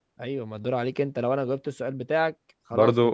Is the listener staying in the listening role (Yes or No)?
No